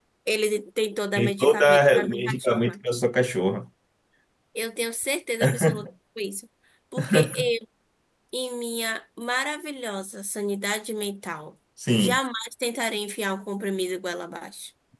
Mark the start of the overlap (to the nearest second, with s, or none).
1 s